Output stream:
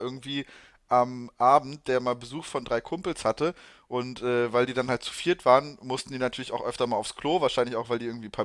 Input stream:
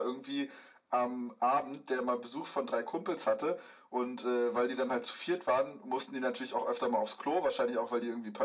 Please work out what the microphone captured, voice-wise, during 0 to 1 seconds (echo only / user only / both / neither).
echo only